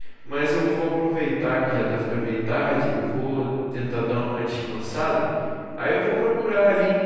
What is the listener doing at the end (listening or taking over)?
listening